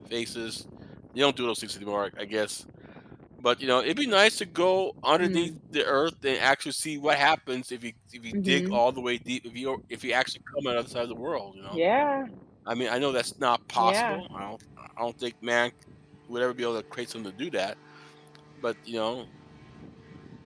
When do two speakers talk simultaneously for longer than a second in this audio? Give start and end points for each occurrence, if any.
none

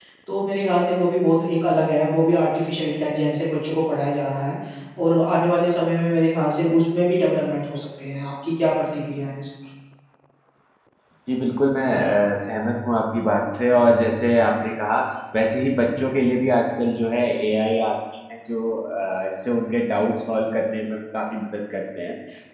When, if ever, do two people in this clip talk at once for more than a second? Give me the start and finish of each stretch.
none

